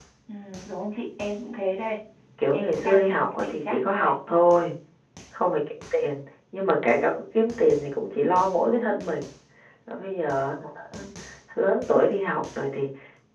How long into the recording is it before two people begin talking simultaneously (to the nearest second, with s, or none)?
3 s